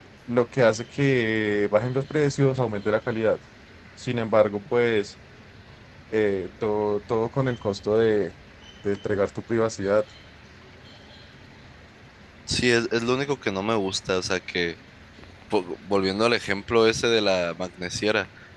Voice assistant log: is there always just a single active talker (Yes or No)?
Yes